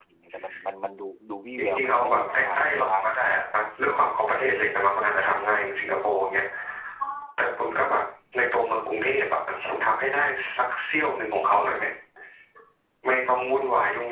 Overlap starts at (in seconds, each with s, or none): 1.6 s